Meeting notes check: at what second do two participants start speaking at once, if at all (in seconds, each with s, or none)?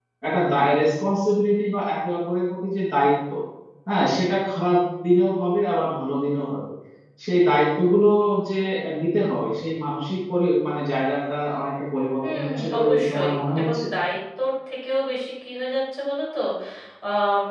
12.2 s